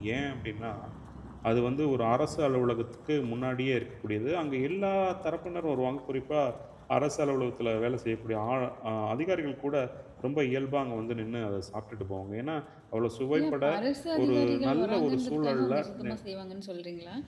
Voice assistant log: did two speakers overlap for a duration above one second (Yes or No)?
Yes